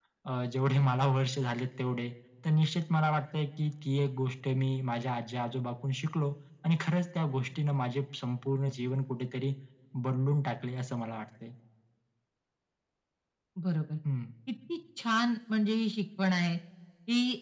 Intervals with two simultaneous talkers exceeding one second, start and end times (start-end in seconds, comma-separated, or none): none